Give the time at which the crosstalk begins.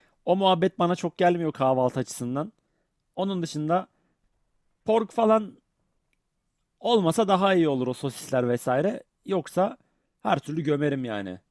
none

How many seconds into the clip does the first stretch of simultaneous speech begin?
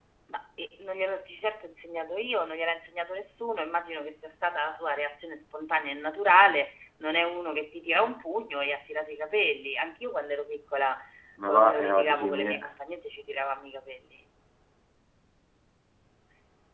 11.5 s

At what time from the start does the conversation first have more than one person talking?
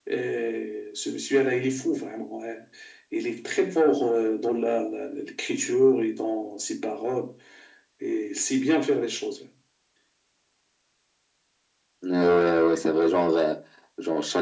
none

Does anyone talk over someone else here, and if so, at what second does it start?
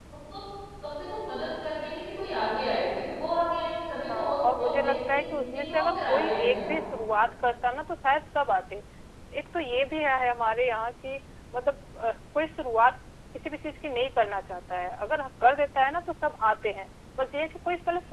4.1 s

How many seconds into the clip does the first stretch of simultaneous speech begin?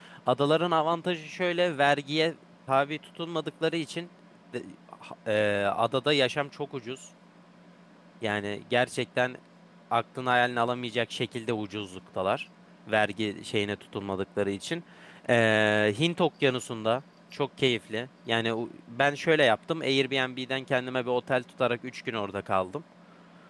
none

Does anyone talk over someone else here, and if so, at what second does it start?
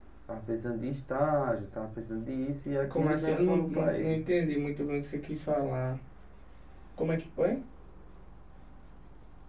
2.8 s

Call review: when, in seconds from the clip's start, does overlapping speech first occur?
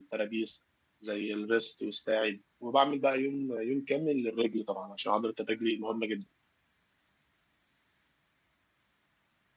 none

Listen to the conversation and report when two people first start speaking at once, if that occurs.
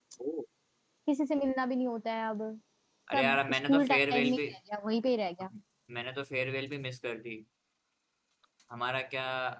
3.1 s

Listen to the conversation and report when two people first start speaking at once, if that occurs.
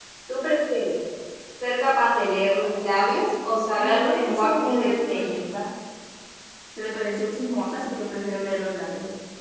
3.8 s

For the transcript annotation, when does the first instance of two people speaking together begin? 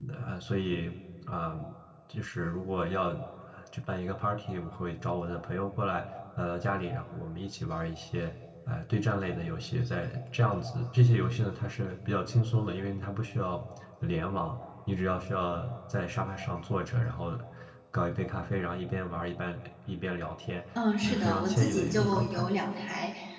21.0 s

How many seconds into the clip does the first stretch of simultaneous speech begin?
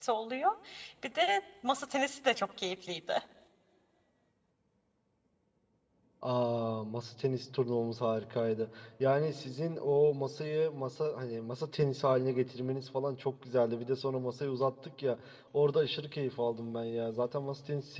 none

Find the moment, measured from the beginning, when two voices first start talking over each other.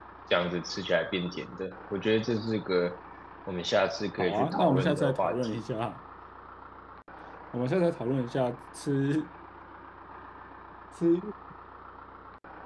4.2 s

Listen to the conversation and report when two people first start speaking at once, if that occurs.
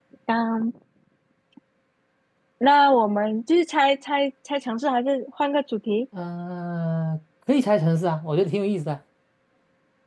none

